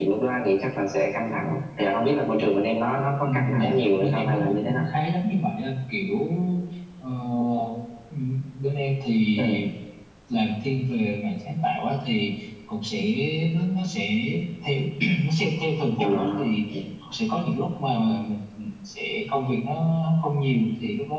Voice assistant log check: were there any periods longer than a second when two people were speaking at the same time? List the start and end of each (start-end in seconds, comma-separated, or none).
3.2-4.8